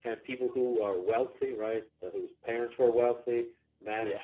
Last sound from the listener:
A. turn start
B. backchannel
B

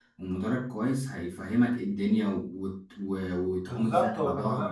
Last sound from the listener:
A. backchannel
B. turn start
B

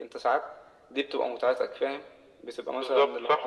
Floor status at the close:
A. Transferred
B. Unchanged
B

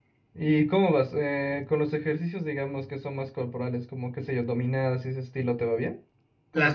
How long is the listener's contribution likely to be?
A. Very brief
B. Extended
B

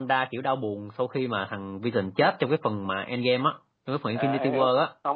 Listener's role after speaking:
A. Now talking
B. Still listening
A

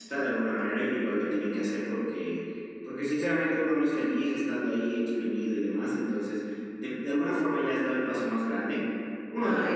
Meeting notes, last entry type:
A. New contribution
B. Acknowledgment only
B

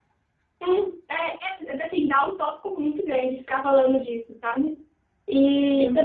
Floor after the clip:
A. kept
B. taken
A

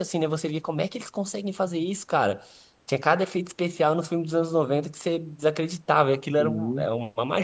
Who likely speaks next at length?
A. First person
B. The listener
A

